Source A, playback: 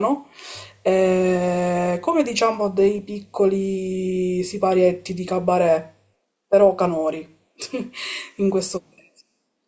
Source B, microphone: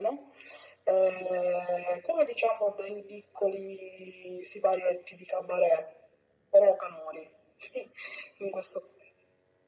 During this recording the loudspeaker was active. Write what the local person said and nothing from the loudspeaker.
none

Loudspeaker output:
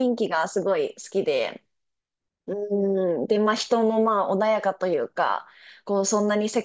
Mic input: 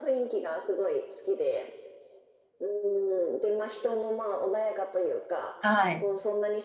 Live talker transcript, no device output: はい。

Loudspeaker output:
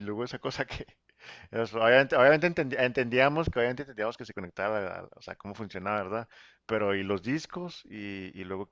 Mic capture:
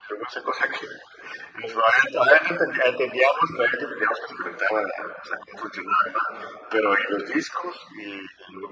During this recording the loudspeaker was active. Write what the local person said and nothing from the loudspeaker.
none

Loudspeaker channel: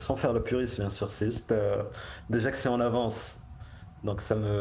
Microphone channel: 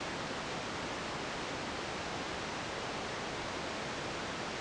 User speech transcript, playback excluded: none

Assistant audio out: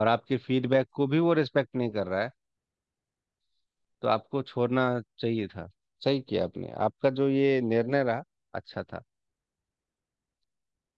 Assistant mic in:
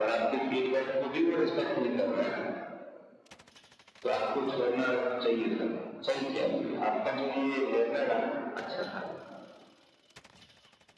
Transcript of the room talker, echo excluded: none

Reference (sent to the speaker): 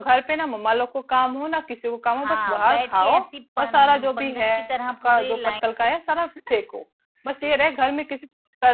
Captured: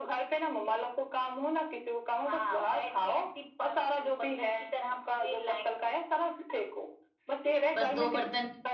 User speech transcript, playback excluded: बस दो बर्तन

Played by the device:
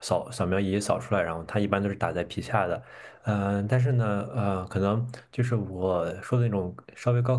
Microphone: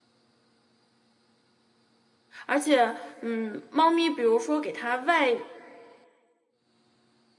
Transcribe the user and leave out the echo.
而且，嗯，猫咪比如说给它外

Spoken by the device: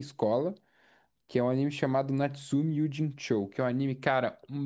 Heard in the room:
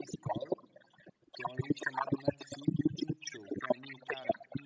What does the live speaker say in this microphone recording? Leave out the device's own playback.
none

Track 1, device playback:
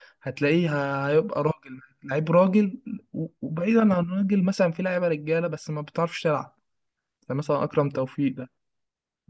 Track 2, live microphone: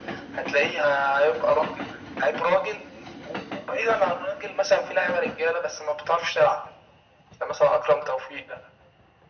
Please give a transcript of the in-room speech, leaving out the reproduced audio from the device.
none

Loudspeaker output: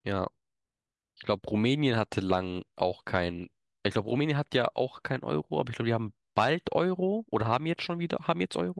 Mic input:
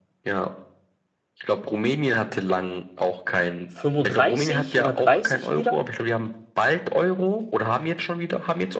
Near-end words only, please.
35 oder 30 Lira.

